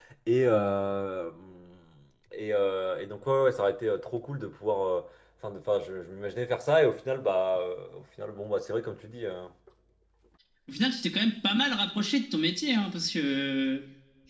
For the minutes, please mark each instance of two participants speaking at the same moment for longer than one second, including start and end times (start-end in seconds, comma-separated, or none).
none